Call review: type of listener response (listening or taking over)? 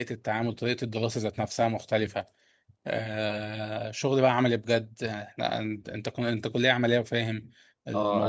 listening